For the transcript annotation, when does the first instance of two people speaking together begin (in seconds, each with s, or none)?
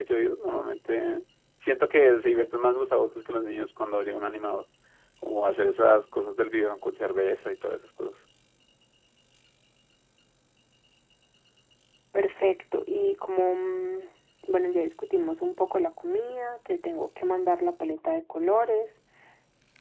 none